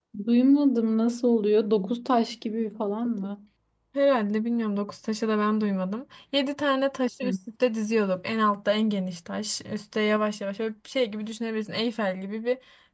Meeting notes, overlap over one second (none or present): none